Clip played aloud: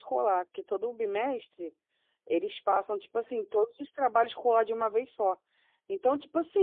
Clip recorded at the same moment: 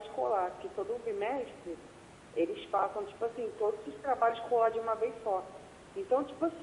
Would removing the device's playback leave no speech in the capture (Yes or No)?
Yes